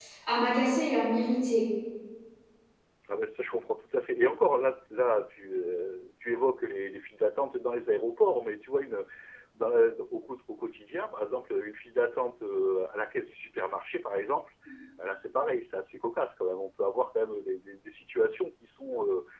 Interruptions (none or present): none